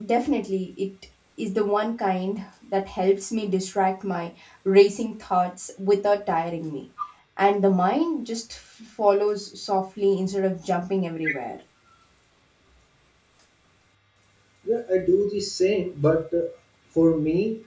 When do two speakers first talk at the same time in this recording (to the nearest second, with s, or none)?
none